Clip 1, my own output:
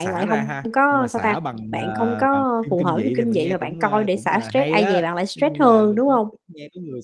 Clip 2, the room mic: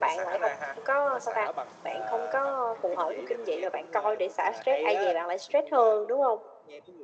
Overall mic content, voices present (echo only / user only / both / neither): echo only